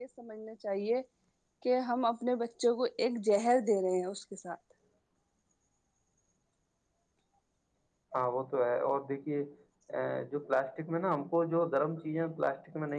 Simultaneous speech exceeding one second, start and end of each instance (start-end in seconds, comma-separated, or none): none